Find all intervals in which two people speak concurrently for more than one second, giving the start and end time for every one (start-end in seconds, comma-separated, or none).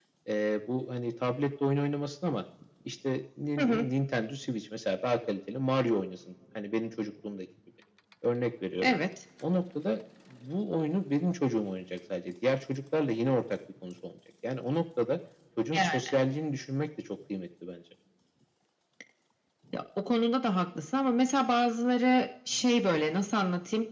none